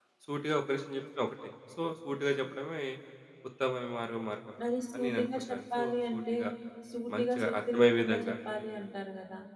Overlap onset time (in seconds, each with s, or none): 5.0 s